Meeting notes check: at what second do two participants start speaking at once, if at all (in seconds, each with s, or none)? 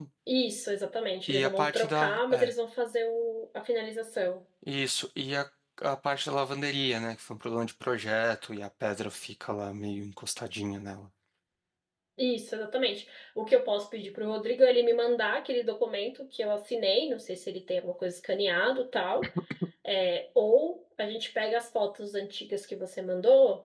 1.3 s